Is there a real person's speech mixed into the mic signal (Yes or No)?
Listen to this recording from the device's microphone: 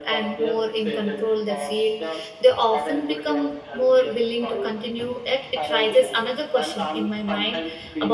Yes